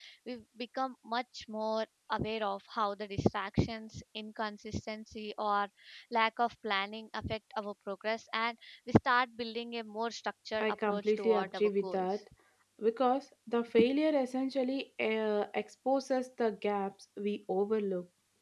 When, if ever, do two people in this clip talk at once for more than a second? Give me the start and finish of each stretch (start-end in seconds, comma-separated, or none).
10.6-12.1